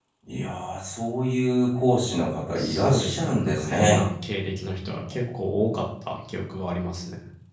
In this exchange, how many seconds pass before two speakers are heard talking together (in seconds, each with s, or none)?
2.6 s